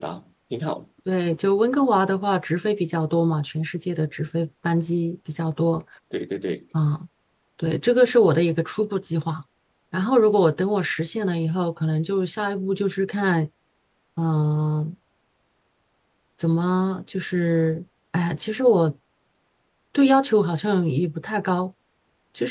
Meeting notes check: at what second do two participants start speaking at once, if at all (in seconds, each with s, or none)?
none